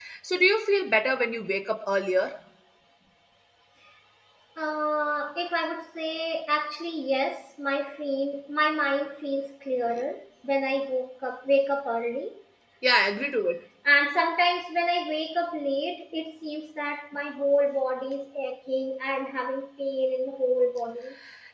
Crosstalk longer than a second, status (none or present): none